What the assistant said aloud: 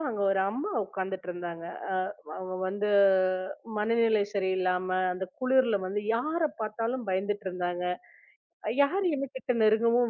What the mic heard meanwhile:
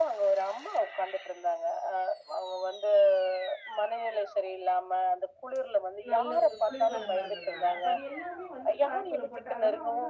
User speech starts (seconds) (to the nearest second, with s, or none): 6 s